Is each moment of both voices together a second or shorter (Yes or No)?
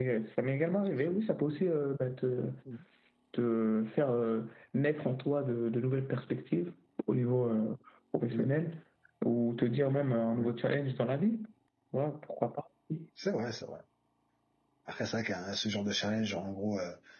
Yes